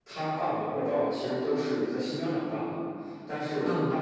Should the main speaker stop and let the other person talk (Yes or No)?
No